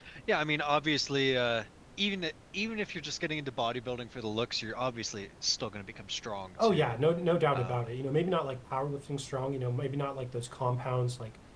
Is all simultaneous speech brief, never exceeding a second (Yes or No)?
Yes